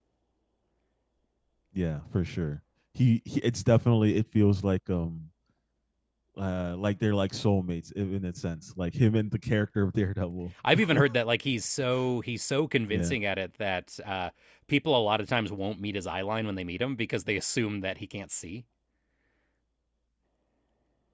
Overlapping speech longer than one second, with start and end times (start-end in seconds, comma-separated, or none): none